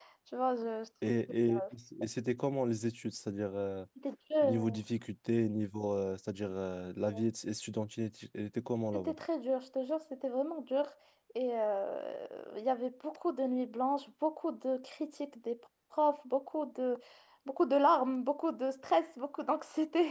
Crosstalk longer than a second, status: none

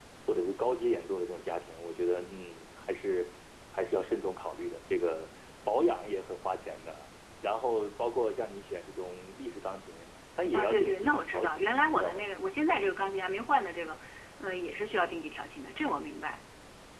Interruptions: present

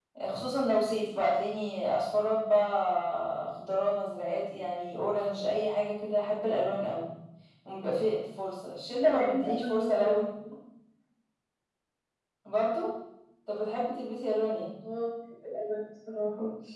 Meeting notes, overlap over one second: present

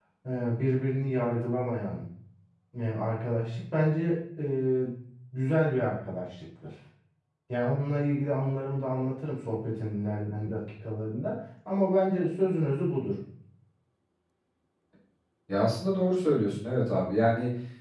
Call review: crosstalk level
none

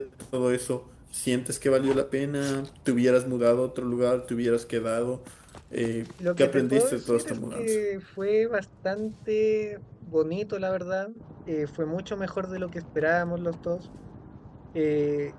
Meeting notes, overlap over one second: present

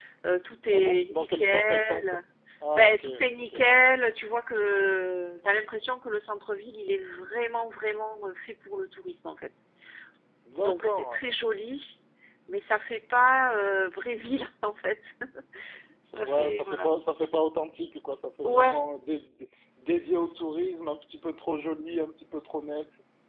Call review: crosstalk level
present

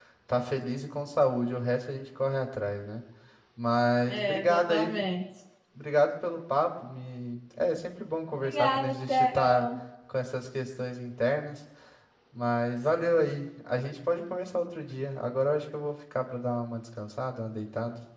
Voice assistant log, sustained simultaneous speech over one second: present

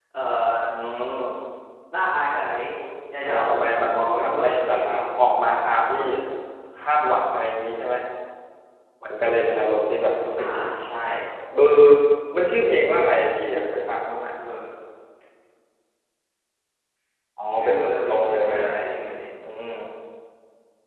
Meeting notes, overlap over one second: present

